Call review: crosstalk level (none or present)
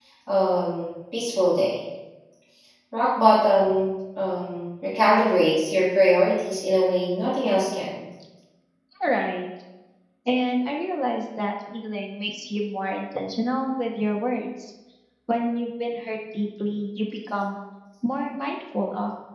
none